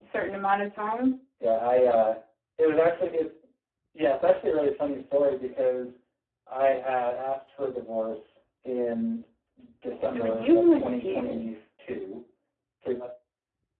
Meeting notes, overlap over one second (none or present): present